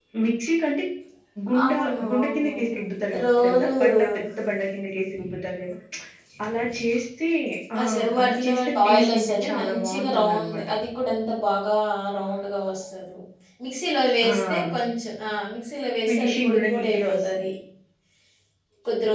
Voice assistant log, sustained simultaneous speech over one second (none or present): present